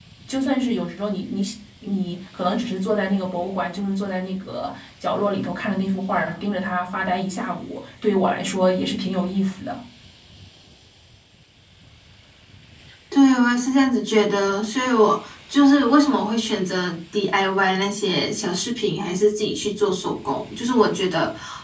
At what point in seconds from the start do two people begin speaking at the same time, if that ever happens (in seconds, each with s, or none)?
none